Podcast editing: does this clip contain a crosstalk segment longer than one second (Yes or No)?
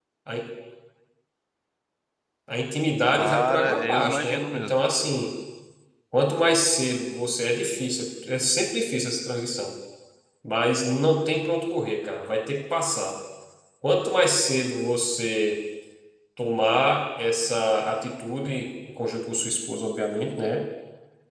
Yes